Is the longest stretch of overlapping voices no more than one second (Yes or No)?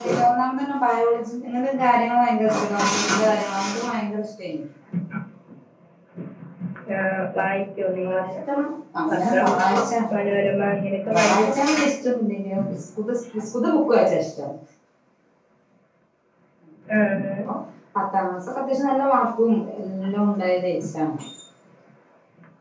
Yes